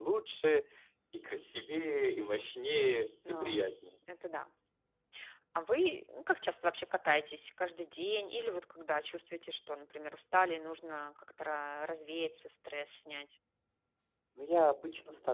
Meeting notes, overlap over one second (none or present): none